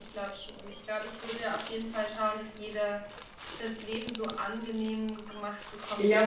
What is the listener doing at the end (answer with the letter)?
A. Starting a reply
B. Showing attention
A